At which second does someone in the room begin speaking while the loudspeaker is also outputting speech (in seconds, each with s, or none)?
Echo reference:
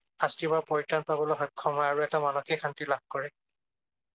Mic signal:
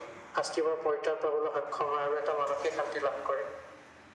none